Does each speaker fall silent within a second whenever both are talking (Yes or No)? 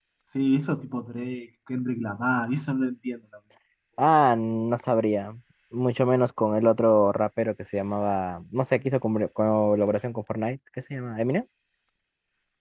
Yes